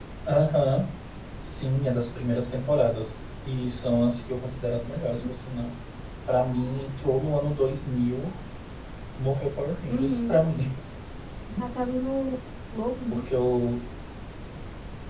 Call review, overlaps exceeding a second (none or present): none